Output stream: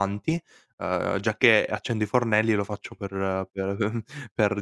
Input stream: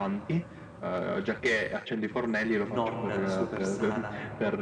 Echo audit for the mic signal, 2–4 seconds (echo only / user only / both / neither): both